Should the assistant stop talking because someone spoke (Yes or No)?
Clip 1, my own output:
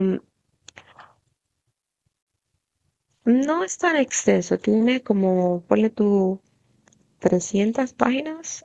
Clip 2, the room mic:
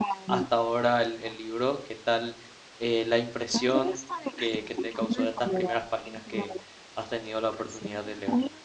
Yes